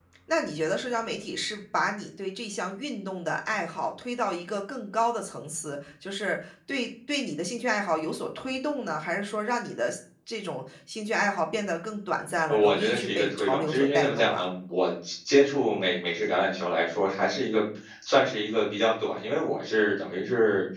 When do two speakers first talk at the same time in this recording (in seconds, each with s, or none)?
12.5 s